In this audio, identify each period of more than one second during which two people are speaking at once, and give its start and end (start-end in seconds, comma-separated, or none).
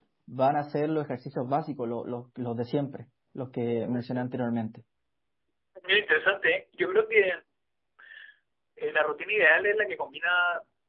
none